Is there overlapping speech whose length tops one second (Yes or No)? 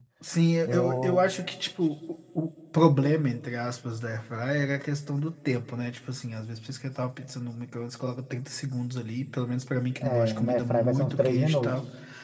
Yes